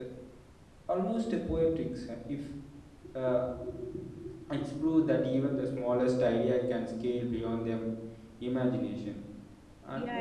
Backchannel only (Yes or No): No